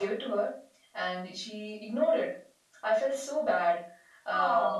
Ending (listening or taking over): listening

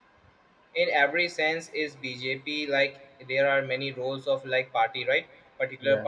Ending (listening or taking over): listening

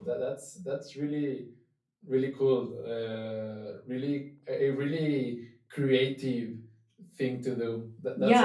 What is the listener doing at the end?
taking over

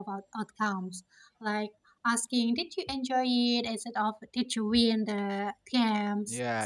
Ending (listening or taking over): taking over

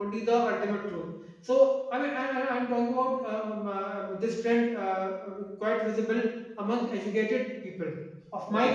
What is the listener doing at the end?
listening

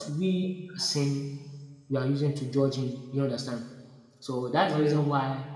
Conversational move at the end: listening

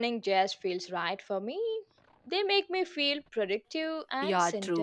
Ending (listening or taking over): taking over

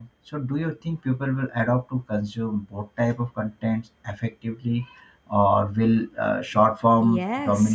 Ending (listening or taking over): taking over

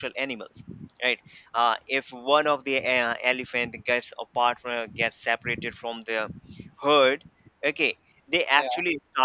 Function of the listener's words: listening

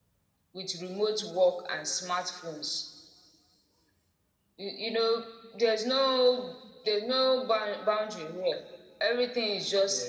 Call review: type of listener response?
listening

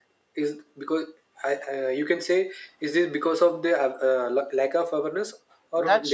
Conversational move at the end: taking over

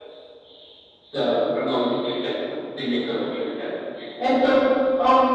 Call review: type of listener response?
listening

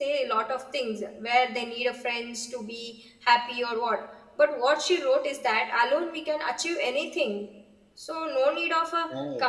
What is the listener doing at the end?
listening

